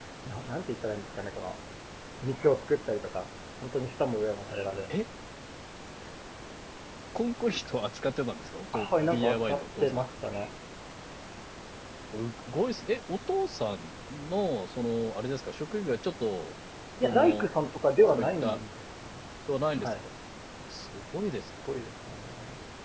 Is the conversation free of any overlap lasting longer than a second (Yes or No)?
No